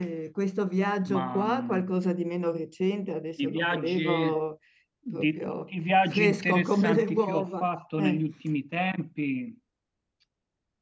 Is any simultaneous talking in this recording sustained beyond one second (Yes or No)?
Yes